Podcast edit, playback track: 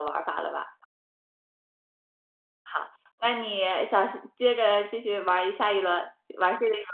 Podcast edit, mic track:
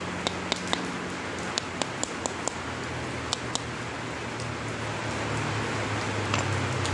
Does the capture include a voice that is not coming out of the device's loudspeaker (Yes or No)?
No